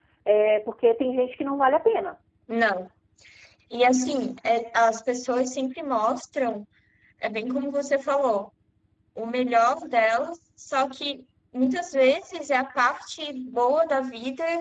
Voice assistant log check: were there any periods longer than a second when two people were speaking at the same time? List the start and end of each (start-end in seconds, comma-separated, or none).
none